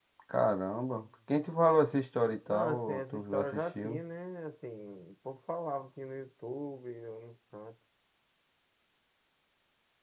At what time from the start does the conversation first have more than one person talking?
2.5 s

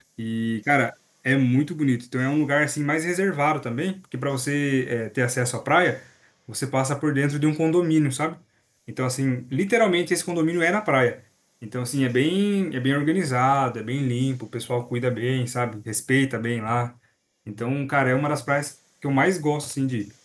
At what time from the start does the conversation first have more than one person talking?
none

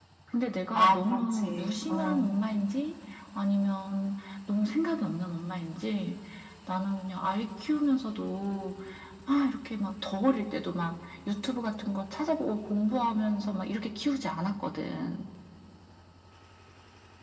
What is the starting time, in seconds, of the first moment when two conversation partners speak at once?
0.7 s

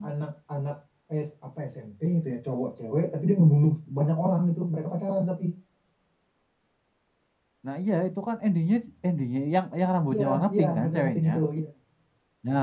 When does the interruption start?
10.1 s

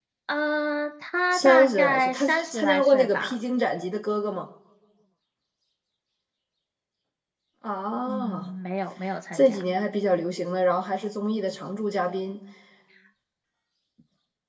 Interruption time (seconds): 1.3 s

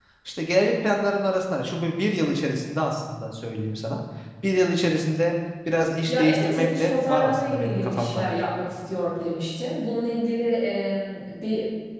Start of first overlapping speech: 6.1 s

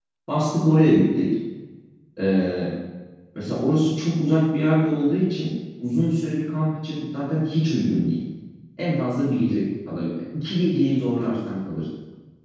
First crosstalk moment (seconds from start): none

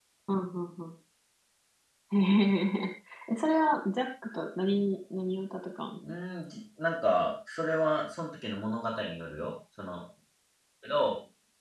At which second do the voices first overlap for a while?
none

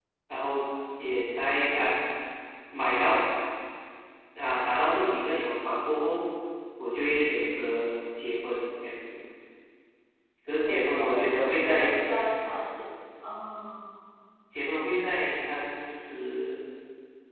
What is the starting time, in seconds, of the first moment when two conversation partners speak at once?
10.7 s

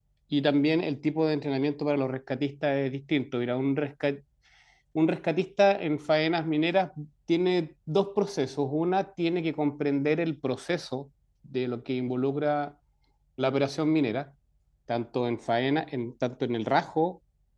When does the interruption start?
none

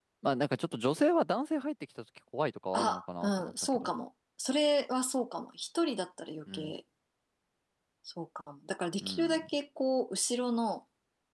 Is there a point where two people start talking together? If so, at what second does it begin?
2.7 s

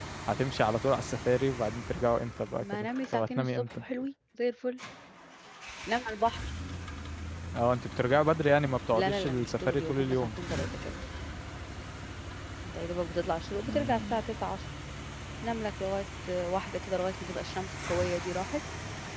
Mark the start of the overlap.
2.6 s

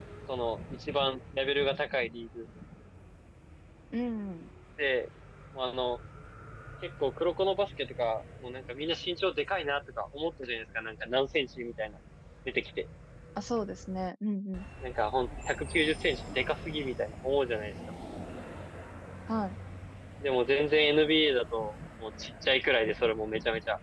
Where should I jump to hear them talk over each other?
none

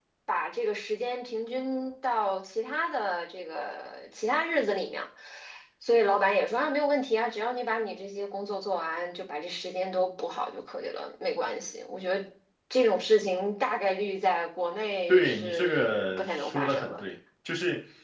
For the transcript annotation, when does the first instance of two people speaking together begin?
15.1 s

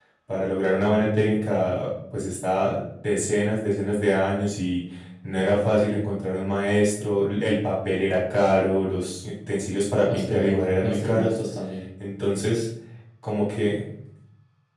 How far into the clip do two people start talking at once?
10.1 s

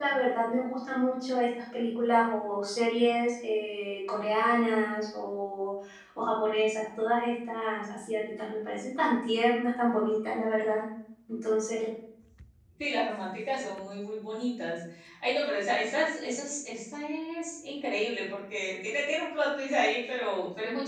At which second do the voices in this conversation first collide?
none

